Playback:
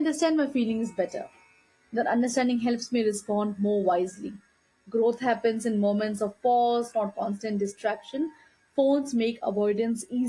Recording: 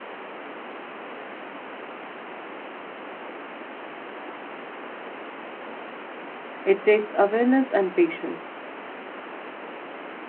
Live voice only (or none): It takes awareness and patience.